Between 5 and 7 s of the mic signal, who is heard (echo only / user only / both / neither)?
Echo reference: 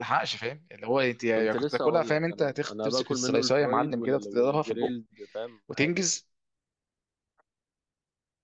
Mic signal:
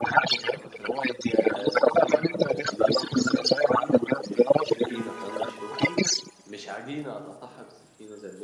both